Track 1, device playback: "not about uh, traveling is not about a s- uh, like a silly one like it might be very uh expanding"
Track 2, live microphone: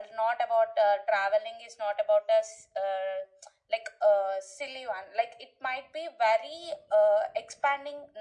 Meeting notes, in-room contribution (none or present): none